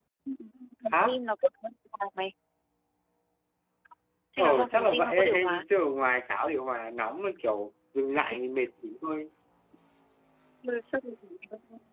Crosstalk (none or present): present